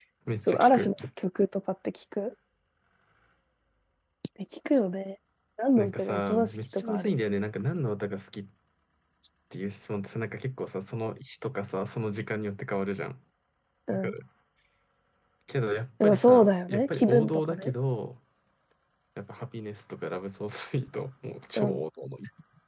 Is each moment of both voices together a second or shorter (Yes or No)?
No